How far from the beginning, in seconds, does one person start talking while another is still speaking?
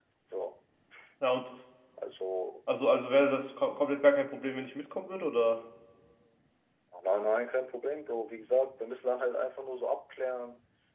none

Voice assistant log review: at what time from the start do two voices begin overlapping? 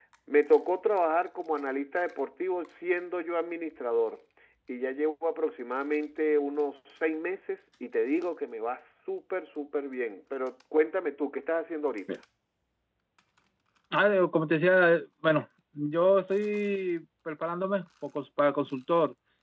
none

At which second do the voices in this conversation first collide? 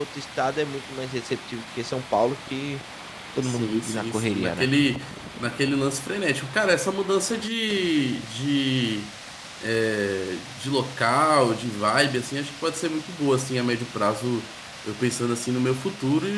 3.4 s

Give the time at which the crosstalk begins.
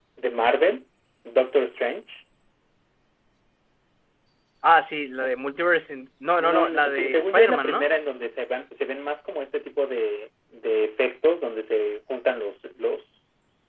6.4 s

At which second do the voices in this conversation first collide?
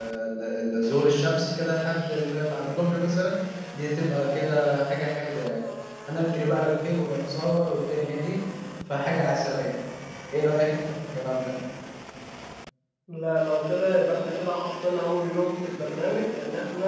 none

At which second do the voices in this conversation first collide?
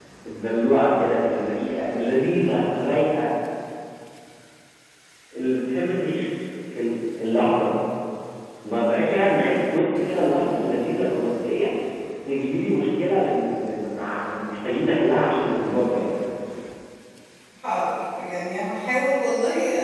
none

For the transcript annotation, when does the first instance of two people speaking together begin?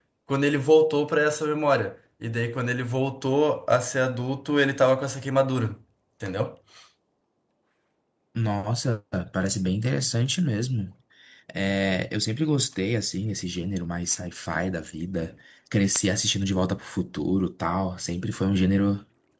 none

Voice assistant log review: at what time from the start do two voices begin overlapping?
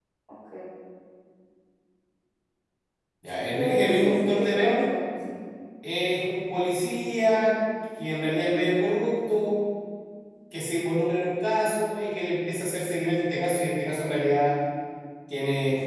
3.6 s

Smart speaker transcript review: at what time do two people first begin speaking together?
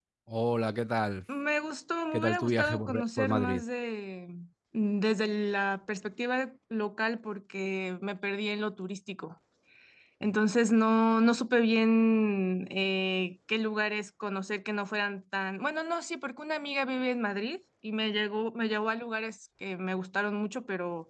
2.1 s

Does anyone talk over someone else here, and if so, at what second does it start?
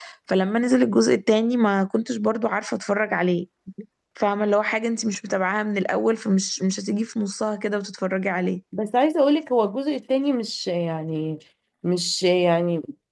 none

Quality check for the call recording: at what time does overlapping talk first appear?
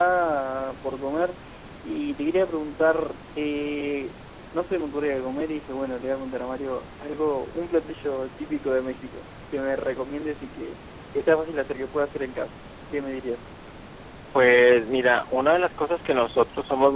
none

